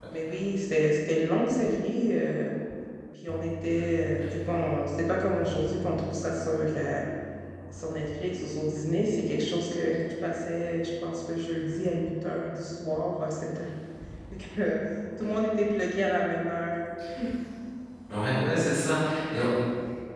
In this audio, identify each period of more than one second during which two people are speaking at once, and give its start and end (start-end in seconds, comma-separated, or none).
none